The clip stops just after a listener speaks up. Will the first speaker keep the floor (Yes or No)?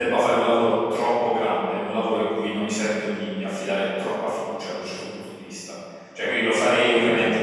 Yes